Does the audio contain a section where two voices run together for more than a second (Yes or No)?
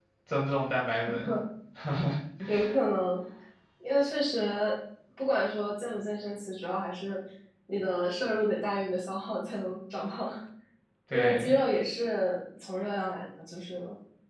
No